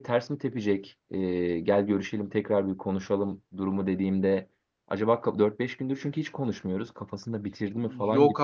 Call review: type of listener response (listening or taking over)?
taking over